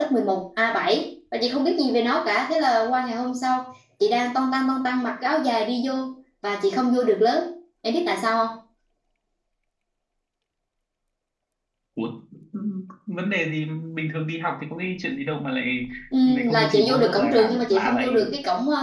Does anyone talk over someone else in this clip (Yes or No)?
Yes